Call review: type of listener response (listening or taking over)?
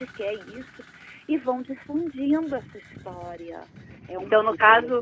taking over